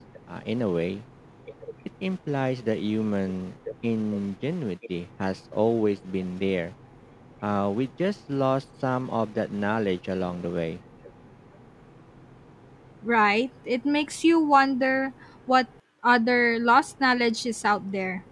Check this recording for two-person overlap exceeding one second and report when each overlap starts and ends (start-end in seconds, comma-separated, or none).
none